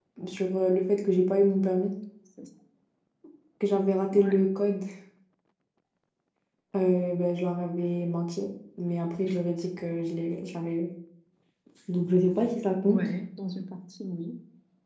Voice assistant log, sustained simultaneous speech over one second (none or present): none